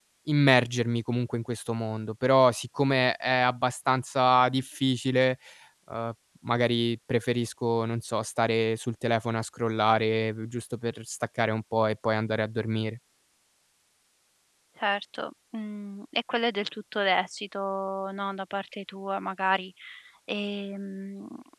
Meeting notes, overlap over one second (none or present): none